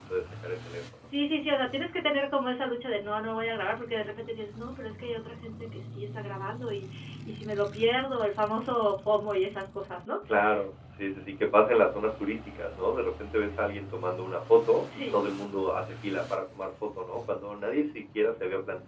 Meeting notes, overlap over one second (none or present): none